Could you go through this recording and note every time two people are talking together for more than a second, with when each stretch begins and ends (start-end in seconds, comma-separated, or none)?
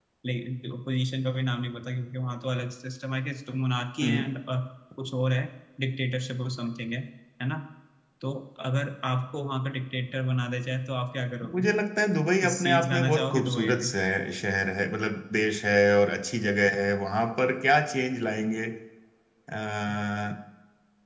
12.4-13.9